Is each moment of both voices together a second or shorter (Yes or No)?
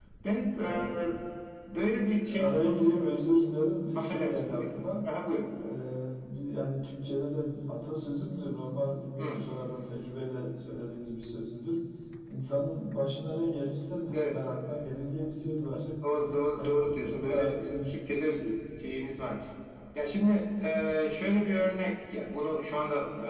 No